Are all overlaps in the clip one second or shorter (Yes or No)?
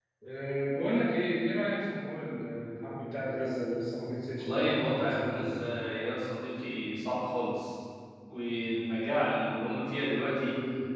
No